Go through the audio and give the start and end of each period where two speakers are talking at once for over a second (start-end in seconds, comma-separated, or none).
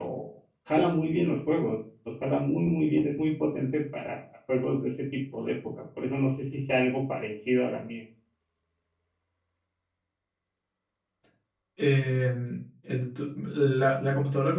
none